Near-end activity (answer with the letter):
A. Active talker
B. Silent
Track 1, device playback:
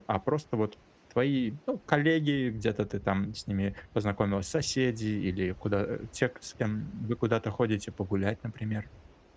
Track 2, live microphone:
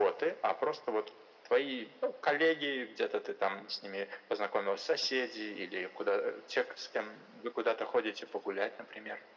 B